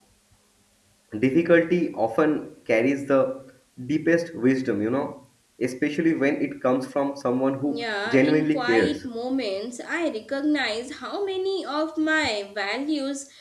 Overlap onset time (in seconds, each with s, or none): 7.7 s